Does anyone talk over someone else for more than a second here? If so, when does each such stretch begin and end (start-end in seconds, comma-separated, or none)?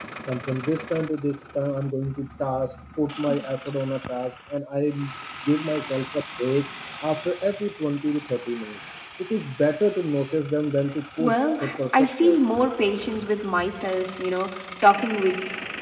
11.2-12.4